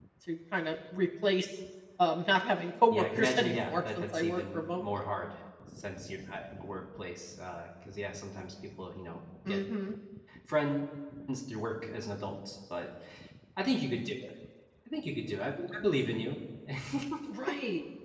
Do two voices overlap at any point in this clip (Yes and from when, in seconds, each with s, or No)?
Yes, from 2.9 s